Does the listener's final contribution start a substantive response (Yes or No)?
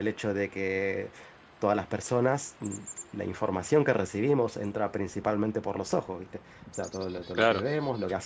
No